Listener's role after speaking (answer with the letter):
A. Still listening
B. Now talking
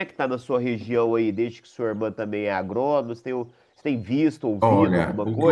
B